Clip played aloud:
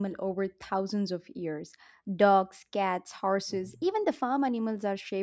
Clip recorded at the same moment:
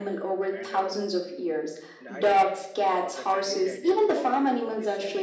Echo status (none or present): present